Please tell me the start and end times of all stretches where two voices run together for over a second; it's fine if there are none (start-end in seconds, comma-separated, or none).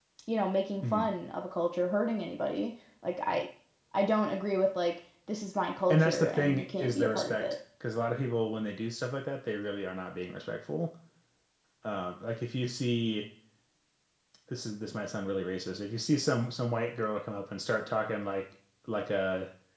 5.9-7.6